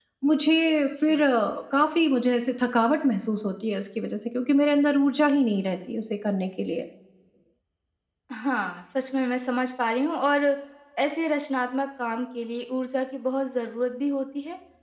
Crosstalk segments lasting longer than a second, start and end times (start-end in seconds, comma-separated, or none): none